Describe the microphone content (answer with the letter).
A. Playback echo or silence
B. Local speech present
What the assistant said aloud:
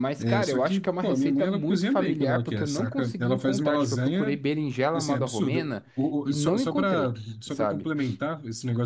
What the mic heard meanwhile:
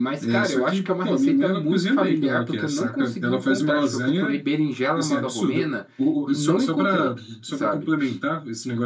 A